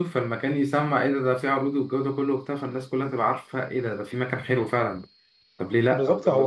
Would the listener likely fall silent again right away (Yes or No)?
No